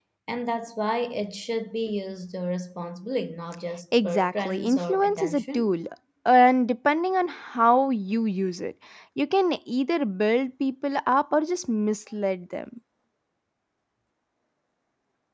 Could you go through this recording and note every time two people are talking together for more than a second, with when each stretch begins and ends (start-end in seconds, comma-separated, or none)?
4.0-5.7